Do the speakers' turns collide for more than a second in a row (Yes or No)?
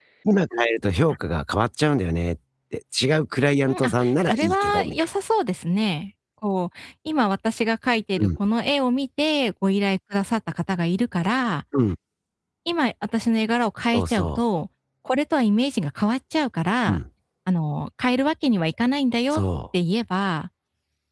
Yes